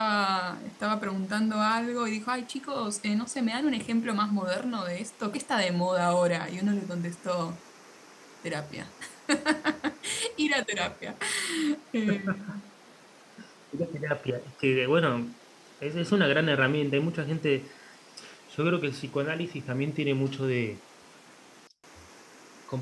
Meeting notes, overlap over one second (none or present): none